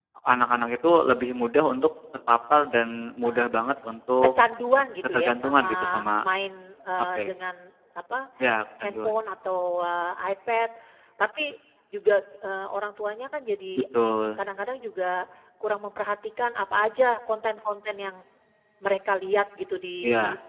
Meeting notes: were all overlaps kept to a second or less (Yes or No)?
No